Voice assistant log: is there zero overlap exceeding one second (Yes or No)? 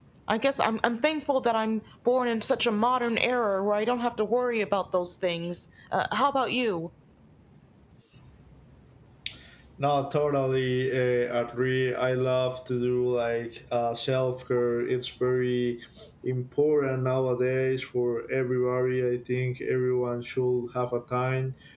Yes